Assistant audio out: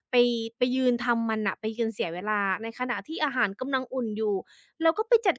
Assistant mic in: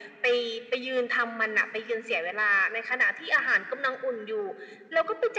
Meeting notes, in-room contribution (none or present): none